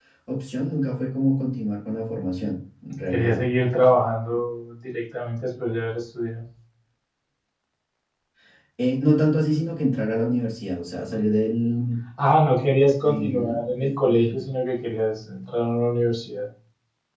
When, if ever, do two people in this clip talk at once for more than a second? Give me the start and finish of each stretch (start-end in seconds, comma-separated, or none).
13.0-14.4